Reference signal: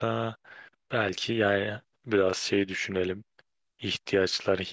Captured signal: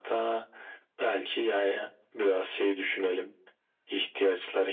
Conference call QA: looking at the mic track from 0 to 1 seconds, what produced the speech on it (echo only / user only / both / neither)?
echo only